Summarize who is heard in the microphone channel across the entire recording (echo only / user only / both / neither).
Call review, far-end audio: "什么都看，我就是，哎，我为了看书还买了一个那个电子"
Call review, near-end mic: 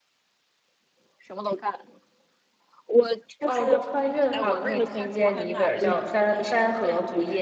both